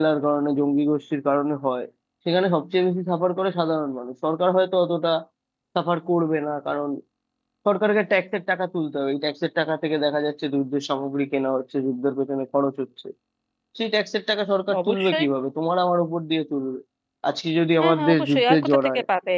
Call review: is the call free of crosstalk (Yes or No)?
No